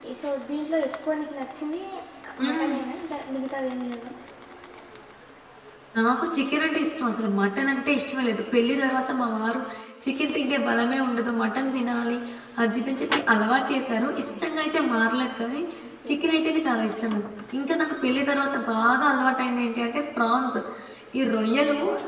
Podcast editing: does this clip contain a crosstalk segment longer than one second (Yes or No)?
No